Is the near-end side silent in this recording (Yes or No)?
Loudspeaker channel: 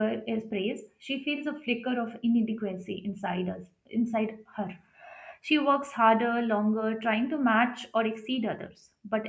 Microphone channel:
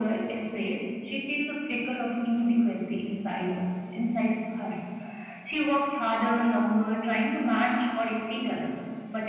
Yes